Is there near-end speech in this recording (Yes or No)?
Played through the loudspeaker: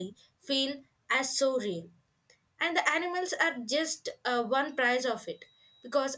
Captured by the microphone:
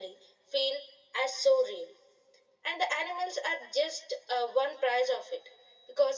No